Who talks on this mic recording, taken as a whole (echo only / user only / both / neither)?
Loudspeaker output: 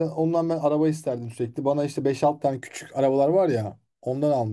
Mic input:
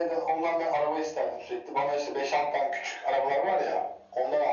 echo only